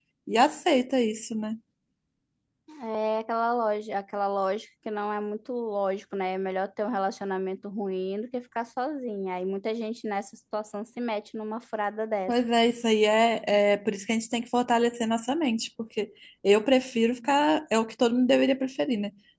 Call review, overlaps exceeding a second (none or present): none